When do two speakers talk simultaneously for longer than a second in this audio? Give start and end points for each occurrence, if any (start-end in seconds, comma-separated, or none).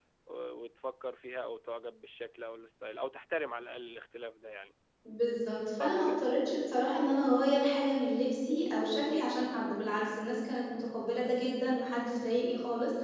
none